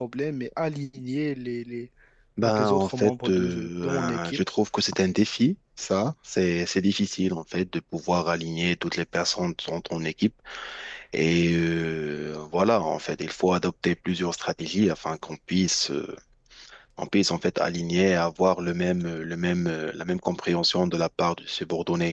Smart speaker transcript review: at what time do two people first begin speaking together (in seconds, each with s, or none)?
2.4 s